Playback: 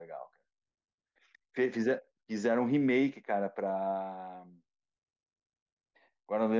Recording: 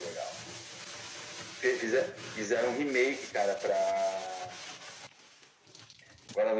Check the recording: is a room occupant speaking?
No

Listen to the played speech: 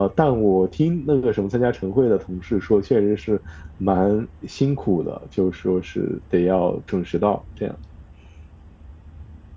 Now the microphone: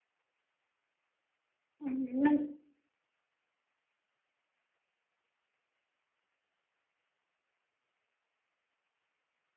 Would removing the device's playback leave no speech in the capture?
No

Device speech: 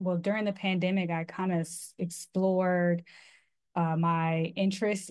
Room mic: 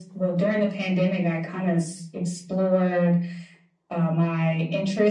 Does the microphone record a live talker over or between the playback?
No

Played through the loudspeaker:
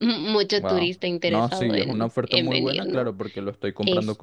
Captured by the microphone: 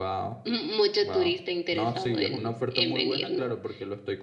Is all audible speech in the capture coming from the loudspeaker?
Yes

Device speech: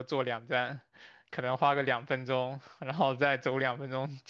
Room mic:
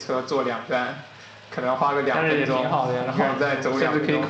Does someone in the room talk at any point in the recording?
Yes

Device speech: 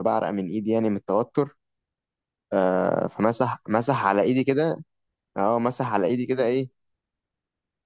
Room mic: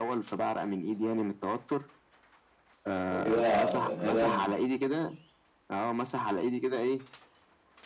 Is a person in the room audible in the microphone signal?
Yes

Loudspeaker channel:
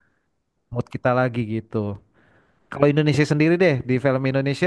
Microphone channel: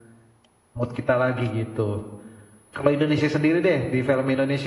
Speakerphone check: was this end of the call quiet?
Yes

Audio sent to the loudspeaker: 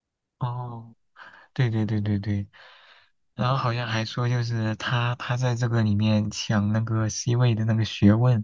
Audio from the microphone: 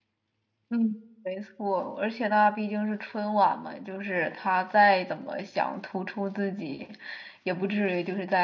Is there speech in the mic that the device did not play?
Yes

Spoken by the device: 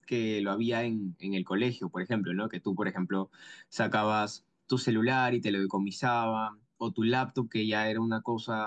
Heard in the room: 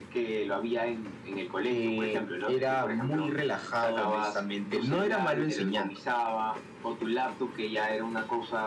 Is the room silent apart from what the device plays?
No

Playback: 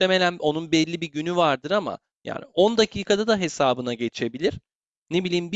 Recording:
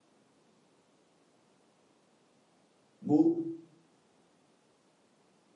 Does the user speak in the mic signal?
Yes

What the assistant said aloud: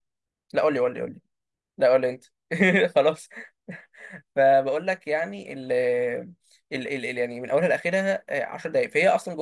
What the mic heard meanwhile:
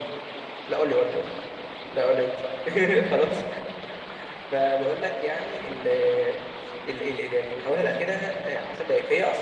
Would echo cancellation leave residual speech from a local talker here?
No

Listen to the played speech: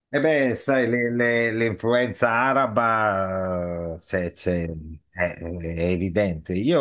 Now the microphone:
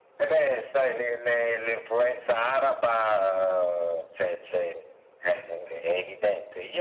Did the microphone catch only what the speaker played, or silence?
Yes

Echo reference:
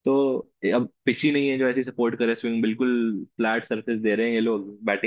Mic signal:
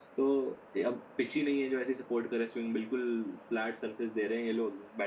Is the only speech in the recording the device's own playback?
Yes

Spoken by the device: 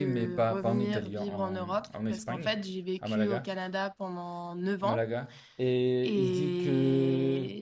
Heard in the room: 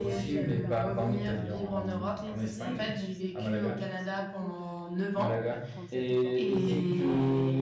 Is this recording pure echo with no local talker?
No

